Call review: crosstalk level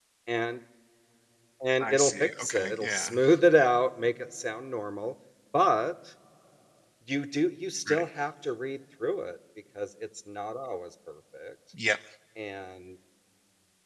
present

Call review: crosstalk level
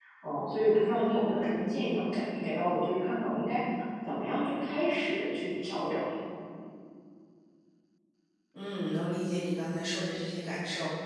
none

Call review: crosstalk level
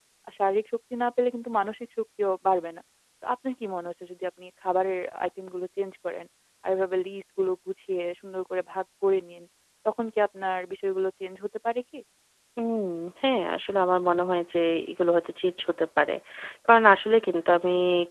none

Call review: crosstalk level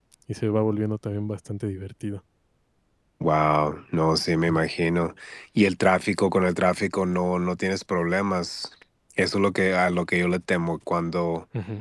none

